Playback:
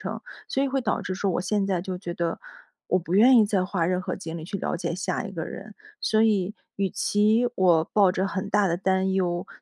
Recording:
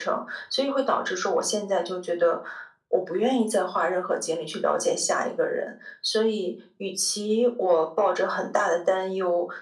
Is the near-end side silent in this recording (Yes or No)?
Yes